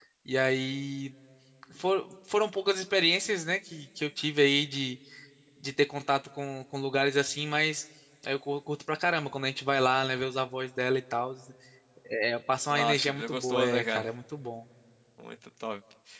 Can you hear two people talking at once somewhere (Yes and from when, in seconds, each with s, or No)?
Yes, from 12.7 s